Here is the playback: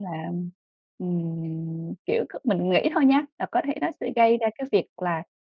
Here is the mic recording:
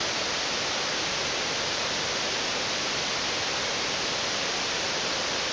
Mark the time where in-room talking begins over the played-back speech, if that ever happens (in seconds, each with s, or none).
none